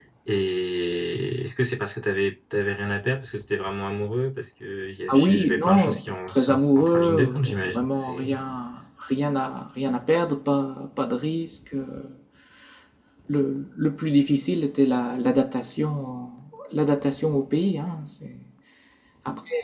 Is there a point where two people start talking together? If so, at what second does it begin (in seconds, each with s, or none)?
5.1 s